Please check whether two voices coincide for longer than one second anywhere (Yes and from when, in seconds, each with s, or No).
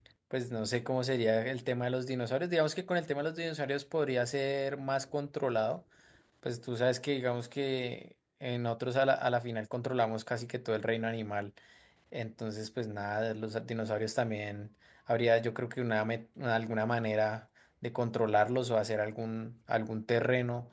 No